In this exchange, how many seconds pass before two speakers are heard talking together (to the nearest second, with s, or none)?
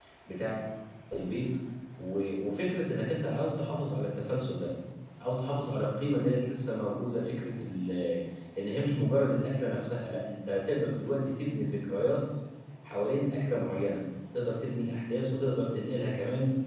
none